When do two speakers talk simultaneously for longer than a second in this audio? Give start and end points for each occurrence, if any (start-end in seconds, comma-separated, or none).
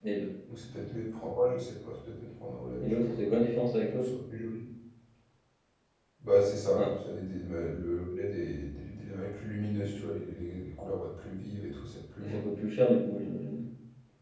none